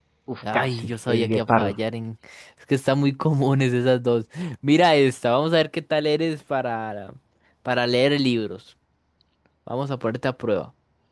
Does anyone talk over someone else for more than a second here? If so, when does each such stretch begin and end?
0.5-1.7

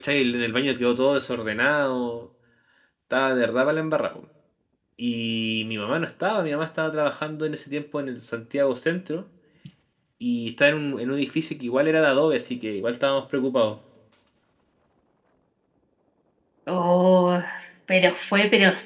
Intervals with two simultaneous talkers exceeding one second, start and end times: none

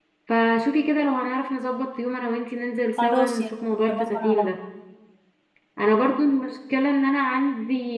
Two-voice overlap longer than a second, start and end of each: 3.0-4.5

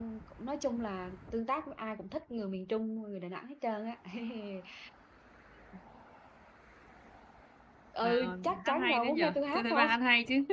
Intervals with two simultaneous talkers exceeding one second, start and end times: 8.0-9.9

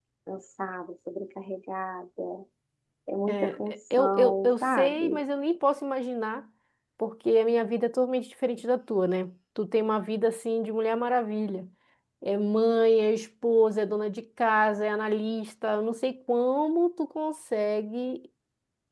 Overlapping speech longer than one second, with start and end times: 3.3-5.2

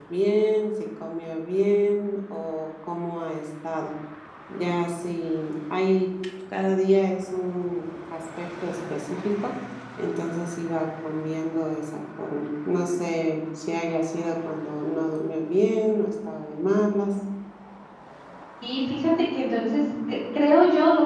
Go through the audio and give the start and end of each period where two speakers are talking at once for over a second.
none

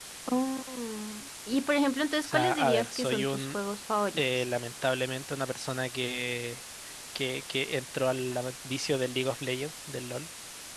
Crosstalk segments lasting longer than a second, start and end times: 2.2-3.6

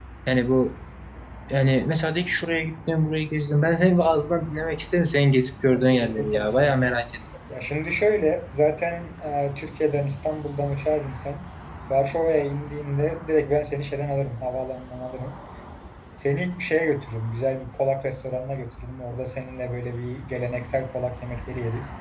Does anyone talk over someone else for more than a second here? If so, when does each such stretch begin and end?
5.7-7.0

